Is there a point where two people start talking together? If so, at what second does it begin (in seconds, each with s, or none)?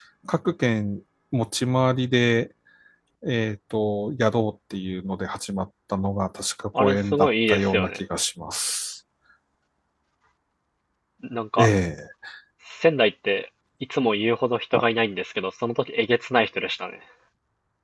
6.8 s